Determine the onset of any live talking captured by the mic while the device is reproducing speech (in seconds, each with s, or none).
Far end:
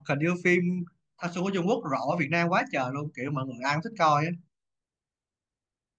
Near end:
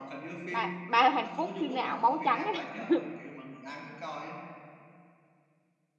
0.5 s